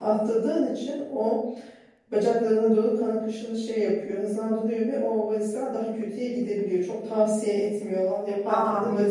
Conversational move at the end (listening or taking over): listening